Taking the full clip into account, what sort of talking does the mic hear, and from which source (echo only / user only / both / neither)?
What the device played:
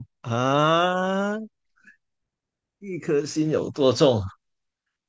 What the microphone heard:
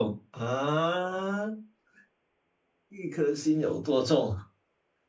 echo only